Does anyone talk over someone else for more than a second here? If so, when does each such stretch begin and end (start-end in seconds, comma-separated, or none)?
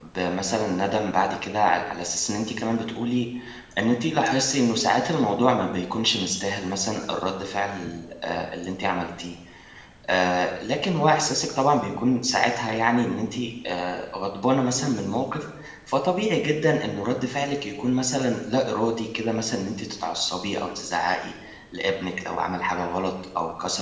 none